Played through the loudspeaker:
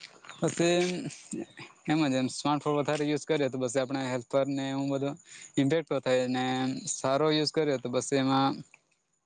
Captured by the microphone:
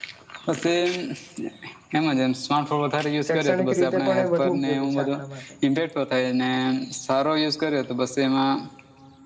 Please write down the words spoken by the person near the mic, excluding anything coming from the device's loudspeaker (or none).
શૈક્ષણિક રીતે પણ એ વધુ ઉપયોગી છે આપણા માટે